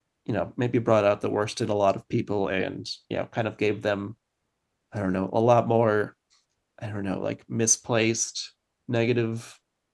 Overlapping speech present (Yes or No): No